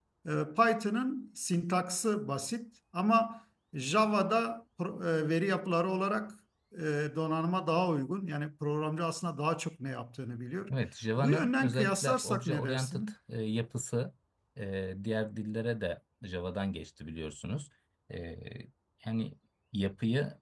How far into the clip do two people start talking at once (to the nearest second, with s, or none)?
11 s